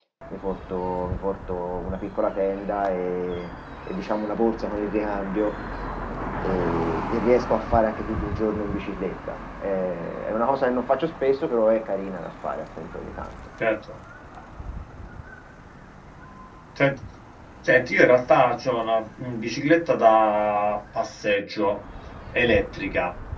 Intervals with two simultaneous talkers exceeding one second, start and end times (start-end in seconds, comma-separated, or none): none